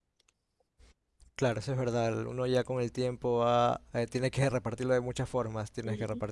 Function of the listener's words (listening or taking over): listening